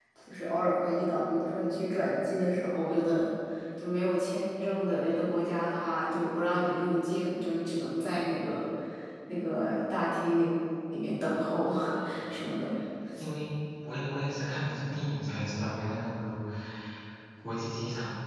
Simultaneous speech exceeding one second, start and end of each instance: none

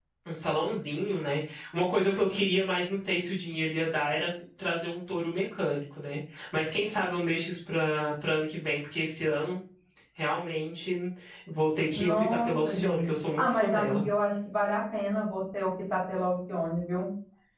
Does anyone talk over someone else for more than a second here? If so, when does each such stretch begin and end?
12.0-14.0

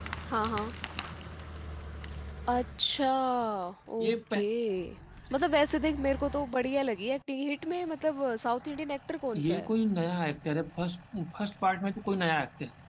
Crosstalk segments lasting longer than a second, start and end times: none

